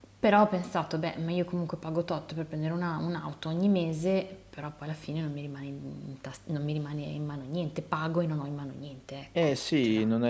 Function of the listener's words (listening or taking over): taking over